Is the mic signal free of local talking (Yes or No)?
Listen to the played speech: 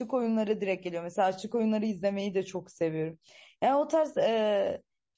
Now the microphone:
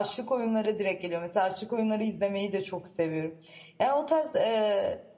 Yes